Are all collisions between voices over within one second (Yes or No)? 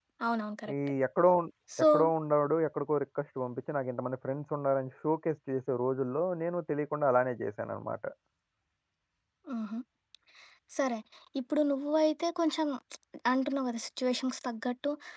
Yes